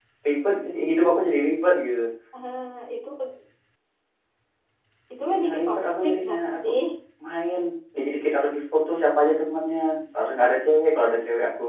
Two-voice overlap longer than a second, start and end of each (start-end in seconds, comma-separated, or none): 5.3-6.7